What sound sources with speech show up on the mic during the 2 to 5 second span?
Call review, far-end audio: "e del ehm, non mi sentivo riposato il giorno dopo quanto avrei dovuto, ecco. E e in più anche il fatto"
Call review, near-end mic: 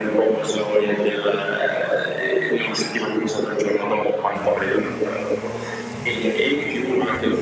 echo only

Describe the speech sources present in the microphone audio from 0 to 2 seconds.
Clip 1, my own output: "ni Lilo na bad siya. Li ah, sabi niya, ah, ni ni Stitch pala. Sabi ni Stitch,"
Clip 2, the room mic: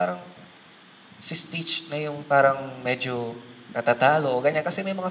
user only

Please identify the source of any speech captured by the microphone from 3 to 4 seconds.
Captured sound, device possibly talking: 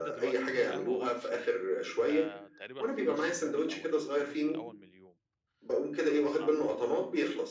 both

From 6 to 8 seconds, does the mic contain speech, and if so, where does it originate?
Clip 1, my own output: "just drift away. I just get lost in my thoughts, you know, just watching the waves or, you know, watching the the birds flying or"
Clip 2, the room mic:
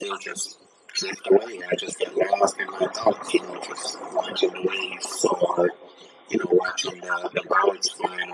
echo only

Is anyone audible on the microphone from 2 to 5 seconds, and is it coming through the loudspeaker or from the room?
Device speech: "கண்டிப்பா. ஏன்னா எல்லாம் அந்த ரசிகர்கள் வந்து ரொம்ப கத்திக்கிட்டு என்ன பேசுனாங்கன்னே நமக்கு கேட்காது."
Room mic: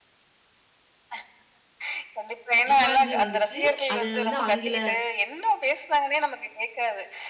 both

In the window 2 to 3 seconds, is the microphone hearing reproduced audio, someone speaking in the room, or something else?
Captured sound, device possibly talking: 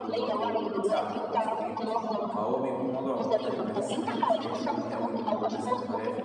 both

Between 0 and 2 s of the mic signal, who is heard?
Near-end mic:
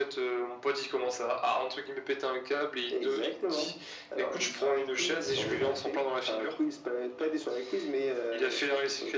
echo only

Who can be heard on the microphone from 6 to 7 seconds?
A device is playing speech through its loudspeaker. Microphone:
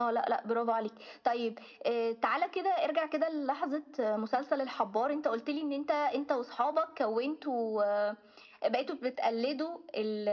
echo only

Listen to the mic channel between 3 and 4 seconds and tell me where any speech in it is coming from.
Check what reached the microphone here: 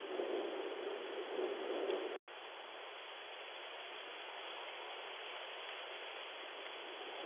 neither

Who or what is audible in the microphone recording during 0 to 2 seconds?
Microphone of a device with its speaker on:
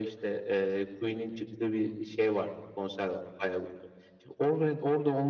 echo only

